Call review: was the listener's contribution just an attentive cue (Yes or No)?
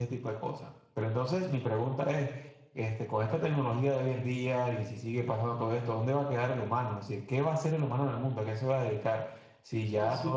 Yes